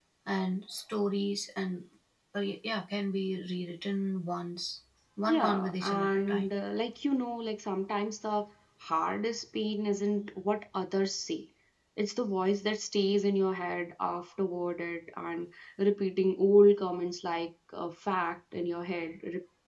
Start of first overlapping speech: 5.2 s

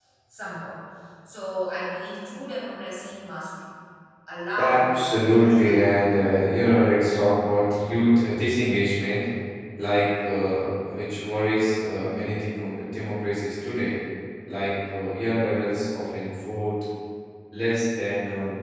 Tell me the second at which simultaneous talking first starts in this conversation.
4.6 s

